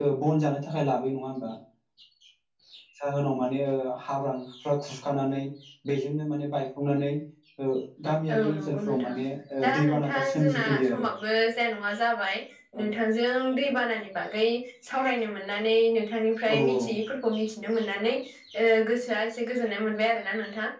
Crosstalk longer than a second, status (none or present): present